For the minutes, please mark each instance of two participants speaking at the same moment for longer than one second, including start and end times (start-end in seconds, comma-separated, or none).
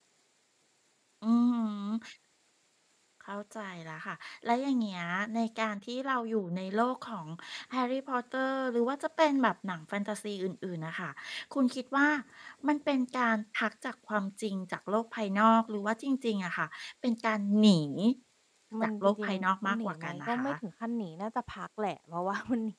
18.8-20.5